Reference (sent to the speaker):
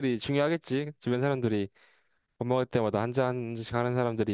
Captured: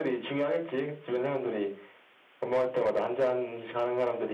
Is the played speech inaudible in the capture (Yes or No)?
No